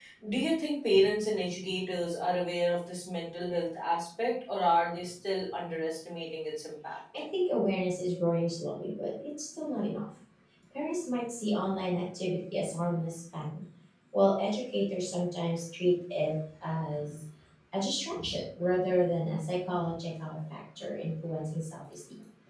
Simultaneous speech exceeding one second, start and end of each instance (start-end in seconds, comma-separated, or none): none